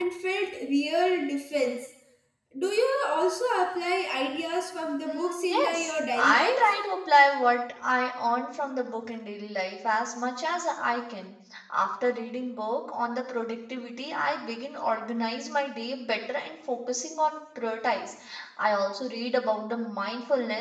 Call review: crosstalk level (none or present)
present